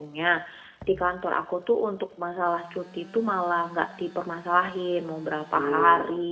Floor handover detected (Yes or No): No